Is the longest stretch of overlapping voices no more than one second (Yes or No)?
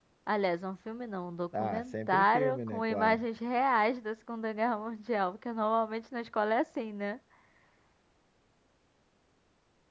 No